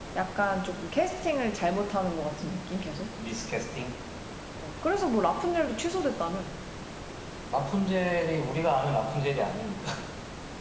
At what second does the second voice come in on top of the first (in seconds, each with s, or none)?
none